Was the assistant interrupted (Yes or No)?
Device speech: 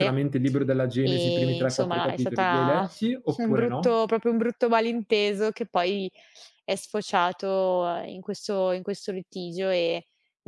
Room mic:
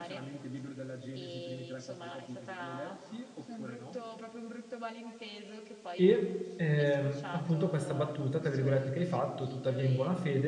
Yes